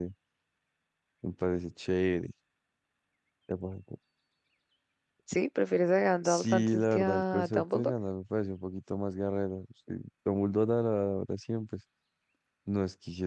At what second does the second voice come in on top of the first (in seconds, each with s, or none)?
6.2 s